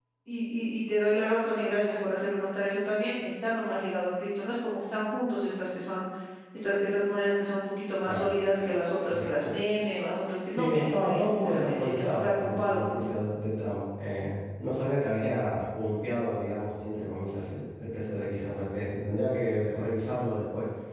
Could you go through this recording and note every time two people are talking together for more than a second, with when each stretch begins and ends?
10.5-12.8

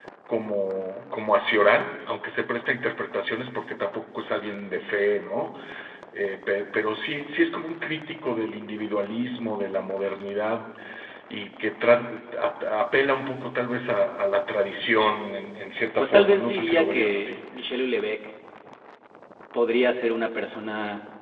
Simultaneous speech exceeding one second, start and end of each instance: 16.0-17.4

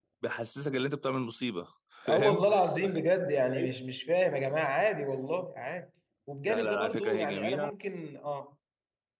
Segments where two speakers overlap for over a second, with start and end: 6.5-7.7

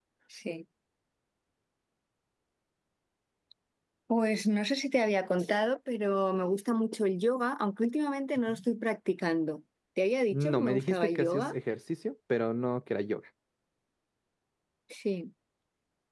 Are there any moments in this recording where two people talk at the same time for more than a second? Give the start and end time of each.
10.3-11.6

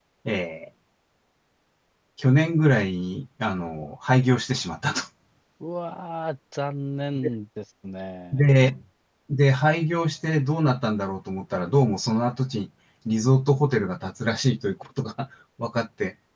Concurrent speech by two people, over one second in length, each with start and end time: none

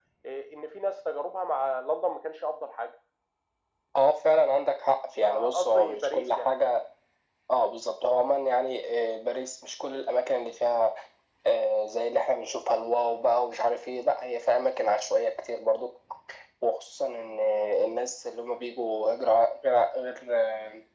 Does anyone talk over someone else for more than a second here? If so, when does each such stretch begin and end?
5.3-6.5

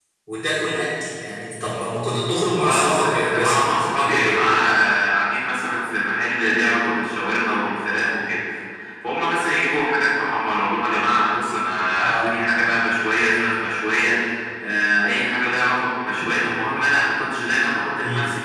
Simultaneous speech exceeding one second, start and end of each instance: 2.5-4.4

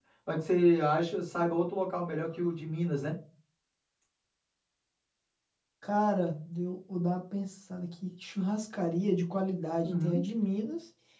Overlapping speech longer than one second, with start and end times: none

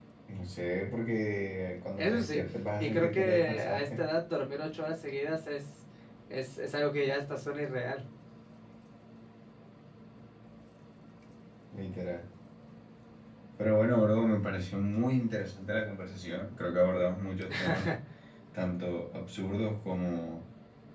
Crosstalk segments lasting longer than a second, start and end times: 2.8-4.0

